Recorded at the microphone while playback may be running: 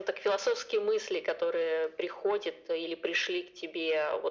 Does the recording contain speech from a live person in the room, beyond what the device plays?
No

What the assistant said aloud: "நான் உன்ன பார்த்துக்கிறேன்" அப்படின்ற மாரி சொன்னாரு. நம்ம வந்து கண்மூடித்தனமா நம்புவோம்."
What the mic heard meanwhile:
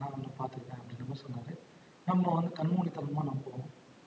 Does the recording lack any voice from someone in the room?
Yes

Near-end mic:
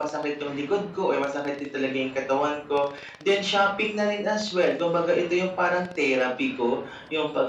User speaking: No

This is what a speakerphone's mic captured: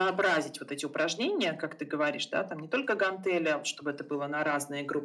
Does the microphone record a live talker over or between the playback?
No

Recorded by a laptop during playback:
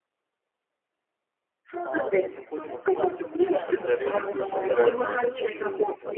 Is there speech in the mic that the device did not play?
Yes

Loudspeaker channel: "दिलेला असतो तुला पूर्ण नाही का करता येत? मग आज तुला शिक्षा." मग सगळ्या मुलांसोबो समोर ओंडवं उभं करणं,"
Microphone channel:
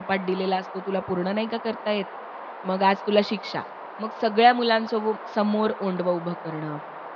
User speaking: No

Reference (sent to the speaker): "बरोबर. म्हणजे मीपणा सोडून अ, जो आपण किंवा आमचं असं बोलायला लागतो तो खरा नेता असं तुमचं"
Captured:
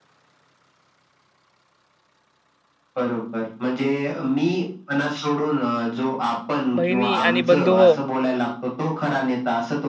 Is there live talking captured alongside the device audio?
Yes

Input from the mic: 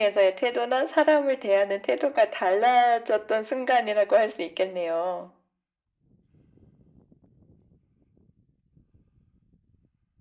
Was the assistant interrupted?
No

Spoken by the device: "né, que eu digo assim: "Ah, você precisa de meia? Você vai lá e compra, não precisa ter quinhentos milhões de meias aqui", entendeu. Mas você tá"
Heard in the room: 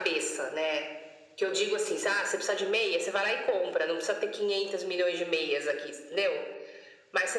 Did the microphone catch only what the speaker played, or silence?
Yes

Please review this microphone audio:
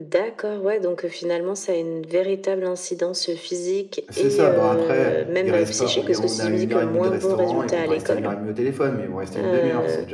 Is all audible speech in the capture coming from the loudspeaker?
No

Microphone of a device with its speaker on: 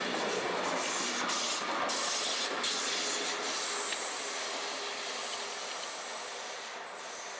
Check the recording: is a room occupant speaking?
No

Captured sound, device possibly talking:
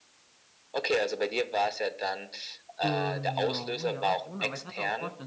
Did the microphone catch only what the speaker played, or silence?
No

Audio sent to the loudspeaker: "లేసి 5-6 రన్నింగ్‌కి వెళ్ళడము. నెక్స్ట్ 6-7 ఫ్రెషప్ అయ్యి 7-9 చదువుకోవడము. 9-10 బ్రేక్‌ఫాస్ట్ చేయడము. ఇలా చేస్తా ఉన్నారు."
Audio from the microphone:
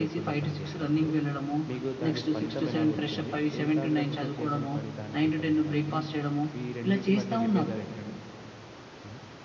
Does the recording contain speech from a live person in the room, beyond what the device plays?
Yes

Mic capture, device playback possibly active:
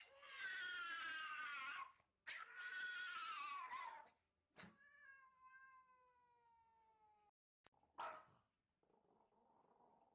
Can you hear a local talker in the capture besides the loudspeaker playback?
No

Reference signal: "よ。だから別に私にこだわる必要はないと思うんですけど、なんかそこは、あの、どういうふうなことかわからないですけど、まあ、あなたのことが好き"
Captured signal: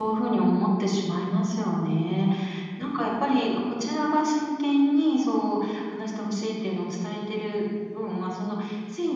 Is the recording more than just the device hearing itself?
Yes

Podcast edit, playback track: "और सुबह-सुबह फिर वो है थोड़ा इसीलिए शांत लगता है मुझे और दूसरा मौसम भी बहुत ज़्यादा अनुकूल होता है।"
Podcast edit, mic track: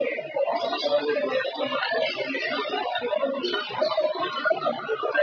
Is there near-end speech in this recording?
No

